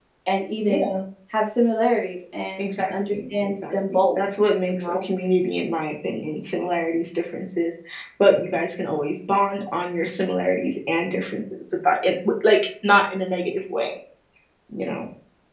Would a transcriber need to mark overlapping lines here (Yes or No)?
Yes